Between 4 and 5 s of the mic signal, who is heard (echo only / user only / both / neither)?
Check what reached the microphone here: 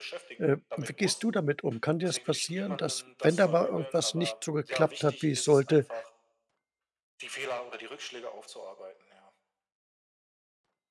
both